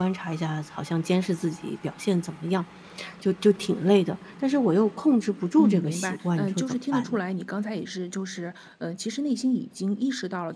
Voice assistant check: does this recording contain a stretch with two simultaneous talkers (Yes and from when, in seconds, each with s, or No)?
Yes, from 5.6 s